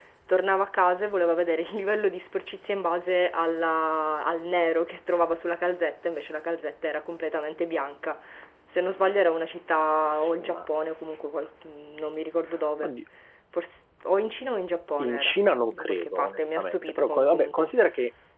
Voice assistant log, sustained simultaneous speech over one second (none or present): present